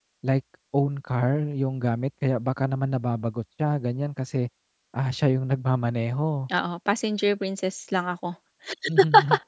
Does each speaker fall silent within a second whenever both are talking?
Yes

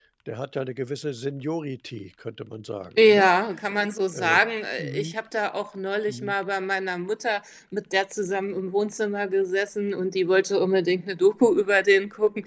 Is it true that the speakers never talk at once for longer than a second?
Yes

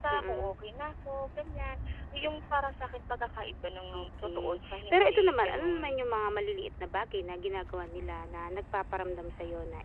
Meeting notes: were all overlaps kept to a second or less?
No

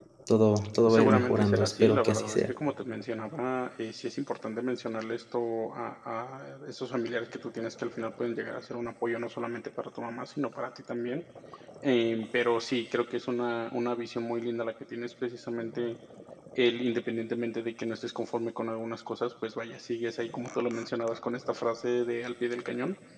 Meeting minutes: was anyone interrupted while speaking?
Yes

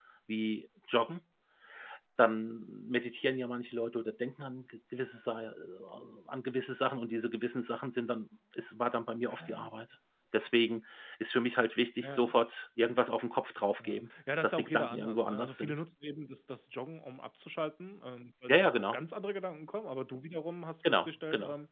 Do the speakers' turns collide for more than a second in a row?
Yes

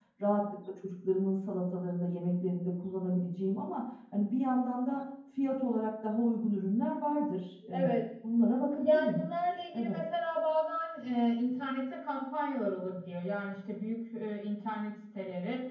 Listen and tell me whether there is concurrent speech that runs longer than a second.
No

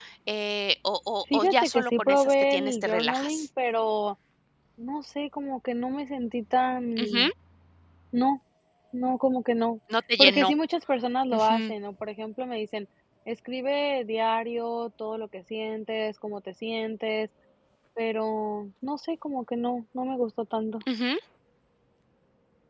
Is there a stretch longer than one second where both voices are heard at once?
Yes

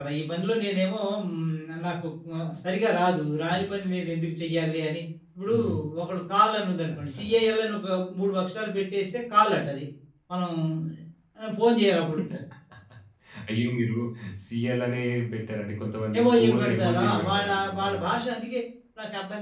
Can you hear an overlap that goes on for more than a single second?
Yes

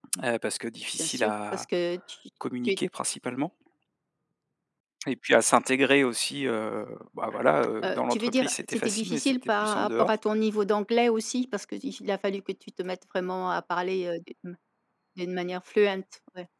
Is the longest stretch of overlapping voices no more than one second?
No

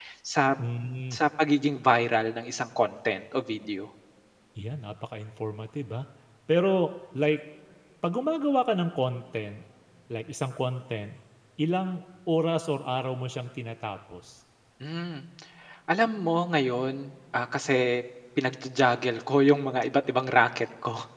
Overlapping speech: No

